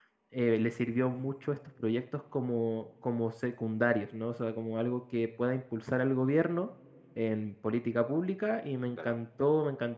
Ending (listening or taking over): listening